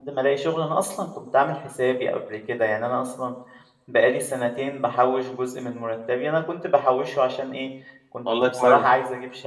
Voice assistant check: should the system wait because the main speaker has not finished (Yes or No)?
Yes